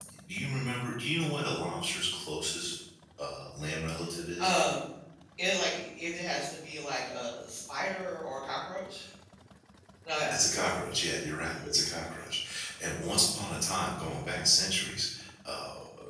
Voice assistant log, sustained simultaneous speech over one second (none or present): none